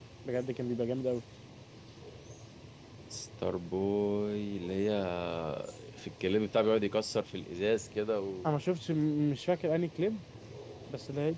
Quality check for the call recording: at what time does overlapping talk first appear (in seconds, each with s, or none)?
none